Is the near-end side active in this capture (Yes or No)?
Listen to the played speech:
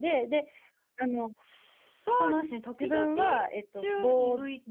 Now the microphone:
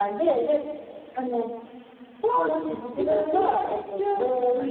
No